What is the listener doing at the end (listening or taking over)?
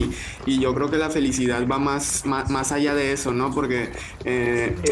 listening